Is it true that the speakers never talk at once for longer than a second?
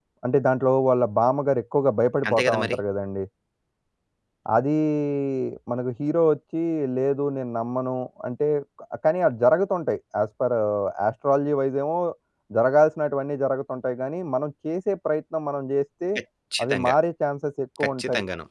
Yes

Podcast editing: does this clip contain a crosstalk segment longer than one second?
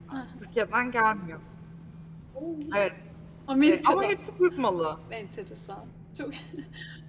No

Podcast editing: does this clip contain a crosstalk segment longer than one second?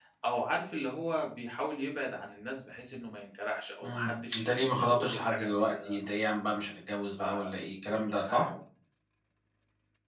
Yes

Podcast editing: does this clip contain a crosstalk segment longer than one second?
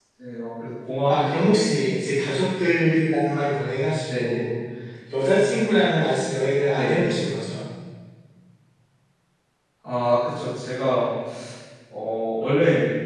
No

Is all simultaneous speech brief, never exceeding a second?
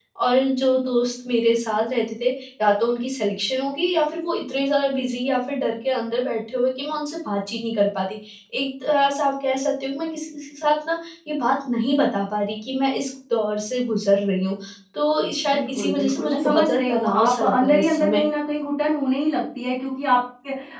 No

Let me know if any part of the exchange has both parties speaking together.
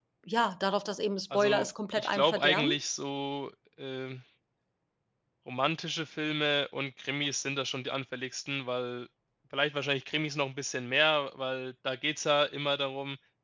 Yes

